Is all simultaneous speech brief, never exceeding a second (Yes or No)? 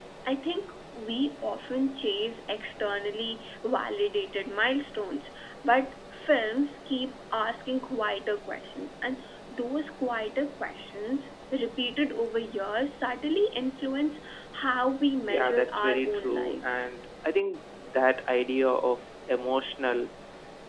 No